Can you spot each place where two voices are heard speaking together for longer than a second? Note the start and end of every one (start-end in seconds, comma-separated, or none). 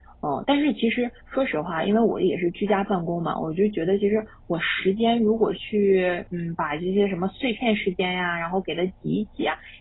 none